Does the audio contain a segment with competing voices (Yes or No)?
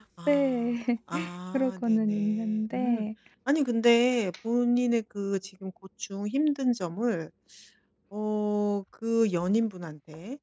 Yes